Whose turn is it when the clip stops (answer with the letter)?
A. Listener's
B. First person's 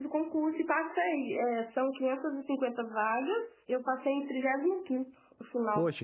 A